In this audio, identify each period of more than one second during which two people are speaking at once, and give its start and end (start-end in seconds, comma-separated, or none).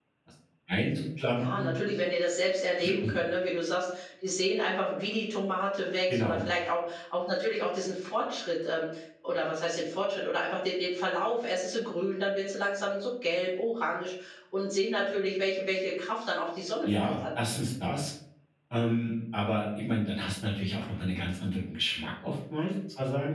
none